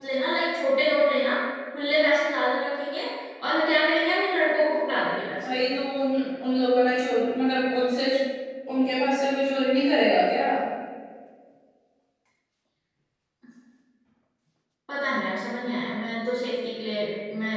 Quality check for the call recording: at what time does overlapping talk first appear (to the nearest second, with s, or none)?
none